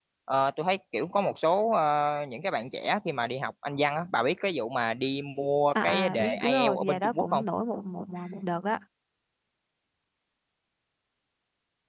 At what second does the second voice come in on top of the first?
5.7 s

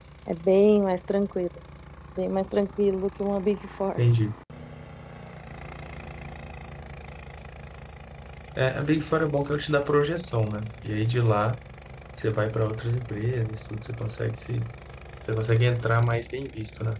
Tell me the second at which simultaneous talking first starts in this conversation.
none

